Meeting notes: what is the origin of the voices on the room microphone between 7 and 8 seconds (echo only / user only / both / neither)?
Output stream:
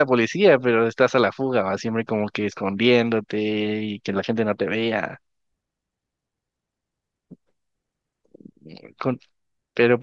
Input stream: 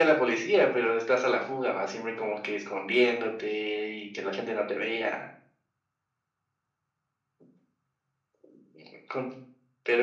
neither